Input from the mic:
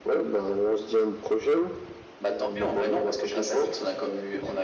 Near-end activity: none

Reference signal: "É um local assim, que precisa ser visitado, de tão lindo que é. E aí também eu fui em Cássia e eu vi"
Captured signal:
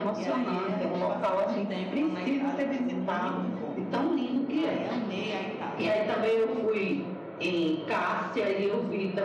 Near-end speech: present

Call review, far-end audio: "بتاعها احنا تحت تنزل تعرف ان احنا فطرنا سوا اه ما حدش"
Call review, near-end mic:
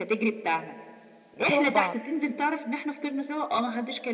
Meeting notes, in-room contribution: present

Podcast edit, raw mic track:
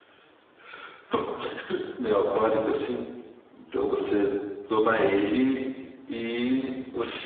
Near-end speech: present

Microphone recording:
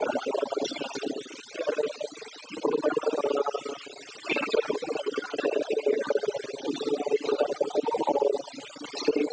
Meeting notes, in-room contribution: none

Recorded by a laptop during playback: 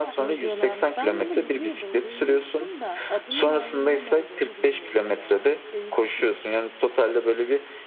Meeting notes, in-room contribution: present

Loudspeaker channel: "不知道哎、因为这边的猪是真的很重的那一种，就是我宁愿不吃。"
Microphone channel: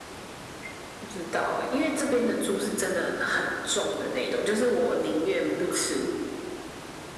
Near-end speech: none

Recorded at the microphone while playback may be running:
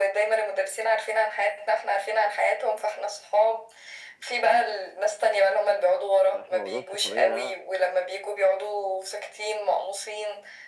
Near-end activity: present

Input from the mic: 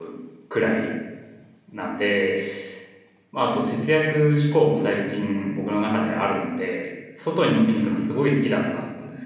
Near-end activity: present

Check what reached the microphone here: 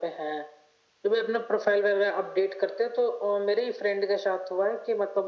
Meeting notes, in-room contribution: none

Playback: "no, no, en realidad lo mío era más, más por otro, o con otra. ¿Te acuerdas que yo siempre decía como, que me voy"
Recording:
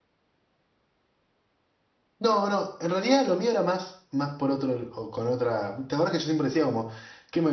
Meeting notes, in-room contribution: none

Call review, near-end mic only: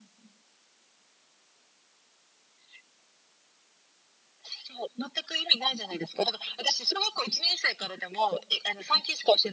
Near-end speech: none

